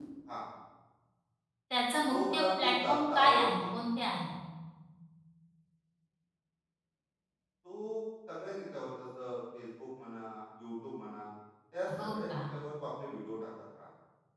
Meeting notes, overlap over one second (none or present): present